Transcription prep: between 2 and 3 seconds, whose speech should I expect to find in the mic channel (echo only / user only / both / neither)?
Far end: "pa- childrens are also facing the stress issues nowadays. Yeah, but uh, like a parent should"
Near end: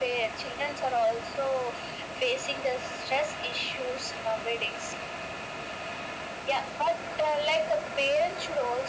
echo only